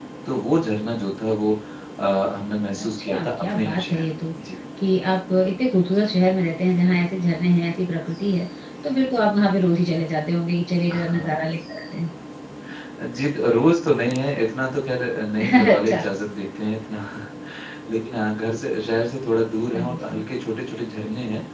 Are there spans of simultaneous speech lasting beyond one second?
Yes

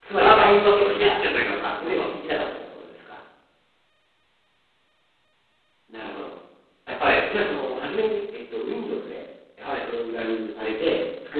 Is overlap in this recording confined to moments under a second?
No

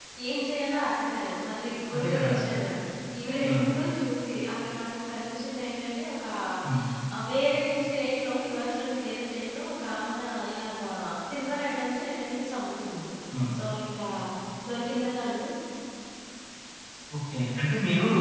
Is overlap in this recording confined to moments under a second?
Yes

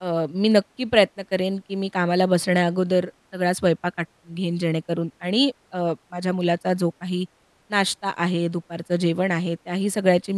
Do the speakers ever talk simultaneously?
No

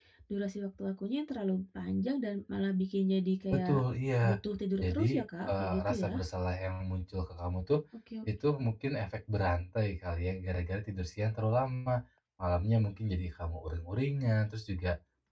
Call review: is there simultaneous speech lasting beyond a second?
Yes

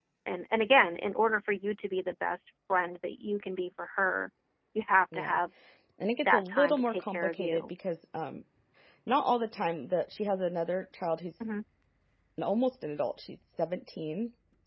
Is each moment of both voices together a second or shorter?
No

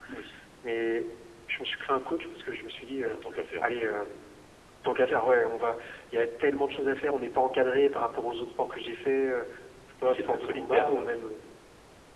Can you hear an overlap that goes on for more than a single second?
Yes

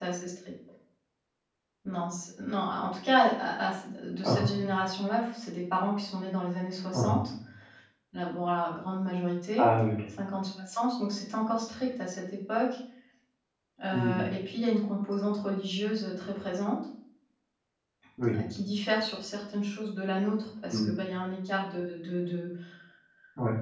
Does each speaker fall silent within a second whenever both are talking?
Yes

